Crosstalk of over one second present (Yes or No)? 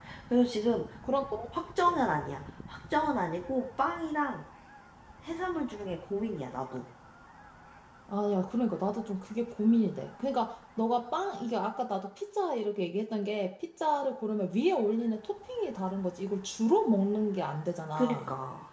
No